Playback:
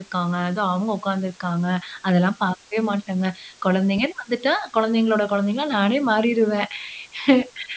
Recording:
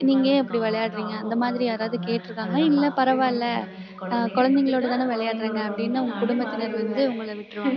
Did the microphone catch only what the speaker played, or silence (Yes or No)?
No